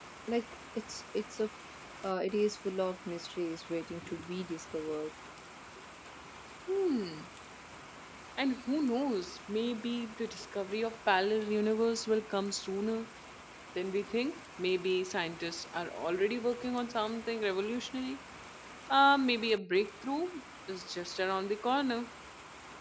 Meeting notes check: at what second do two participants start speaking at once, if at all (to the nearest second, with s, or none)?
none